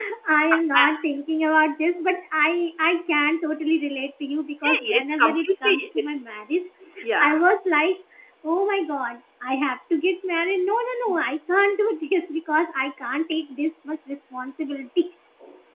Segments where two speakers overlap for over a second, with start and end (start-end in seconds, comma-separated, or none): 4.6-6.1